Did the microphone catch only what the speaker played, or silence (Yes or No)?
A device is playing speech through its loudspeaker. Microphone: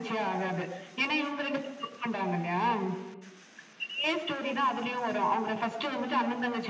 Yes